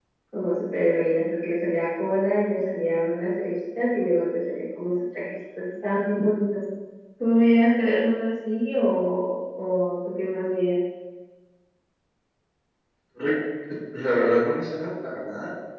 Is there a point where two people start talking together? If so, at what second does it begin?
none

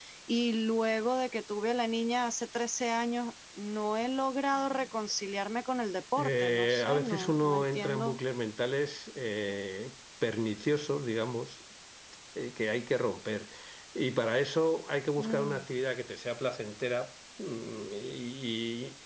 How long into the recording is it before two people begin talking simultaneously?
6.2 s

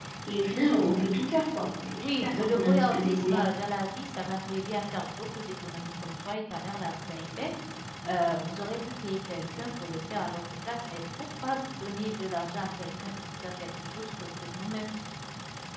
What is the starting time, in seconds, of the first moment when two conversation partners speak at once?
2.0 s

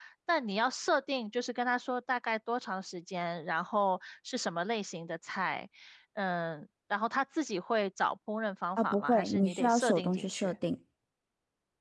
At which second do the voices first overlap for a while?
8.8 s

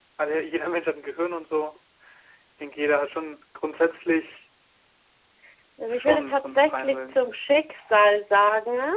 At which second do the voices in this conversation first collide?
5.9 s

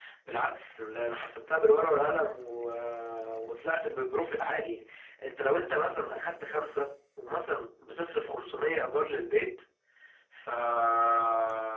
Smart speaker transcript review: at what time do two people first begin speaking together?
none

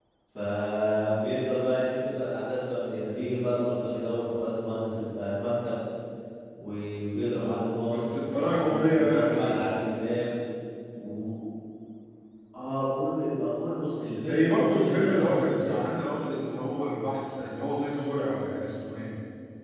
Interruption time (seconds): 7.9 s

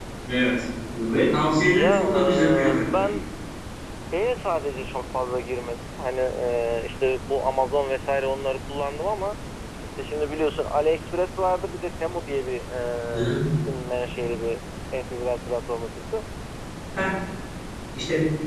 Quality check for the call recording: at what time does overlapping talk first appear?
1.8 s

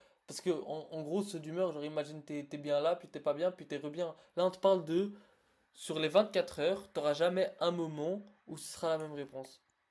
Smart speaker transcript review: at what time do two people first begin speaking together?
none

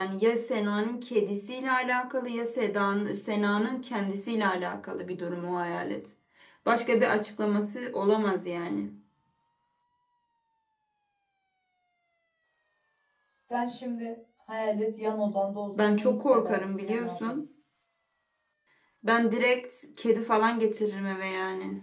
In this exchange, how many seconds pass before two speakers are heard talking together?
15.8 s

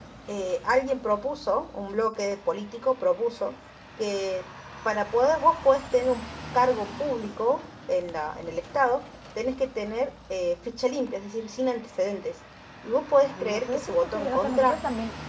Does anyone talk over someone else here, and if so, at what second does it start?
13.2 s

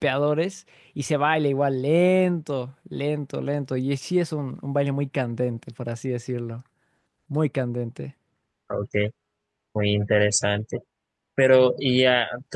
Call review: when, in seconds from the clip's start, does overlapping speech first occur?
none

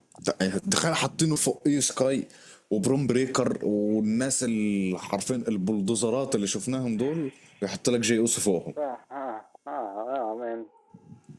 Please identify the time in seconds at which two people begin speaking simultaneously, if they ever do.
none

